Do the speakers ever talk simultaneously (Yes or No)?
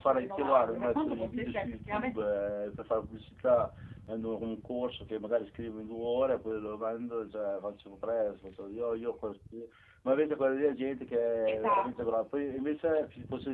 Yes